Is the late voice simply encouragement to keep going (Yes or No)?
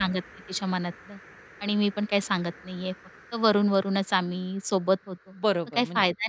No